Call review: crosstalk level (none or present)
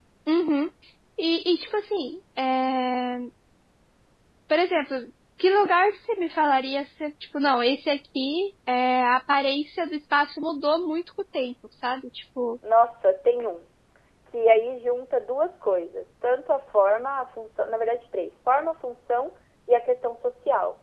none